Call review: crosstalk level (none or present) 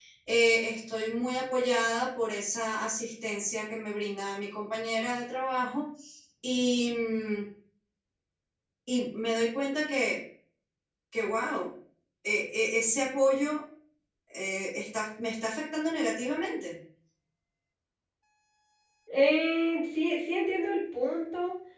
none